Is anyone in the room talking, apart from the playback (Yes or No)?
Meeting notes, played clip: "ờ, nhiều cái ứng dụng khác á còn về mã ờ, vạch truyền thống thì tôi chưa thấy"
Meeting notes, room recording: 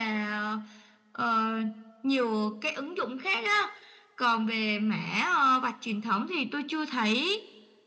No